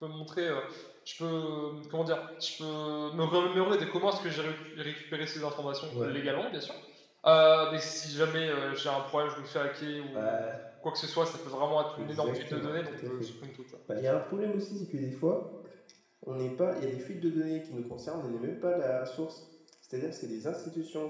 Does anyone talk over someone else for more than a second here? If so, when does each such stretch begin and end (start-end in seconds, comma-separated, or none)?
12.0-13.3